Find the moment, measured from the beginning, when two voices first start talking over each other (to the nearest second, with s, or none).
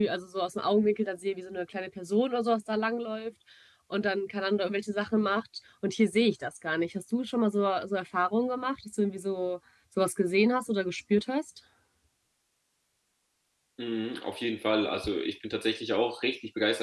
none